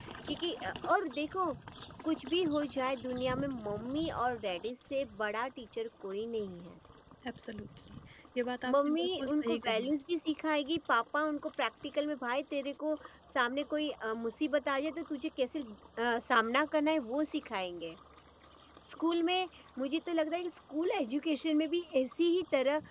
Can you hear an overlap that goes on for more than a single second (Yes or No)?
Yes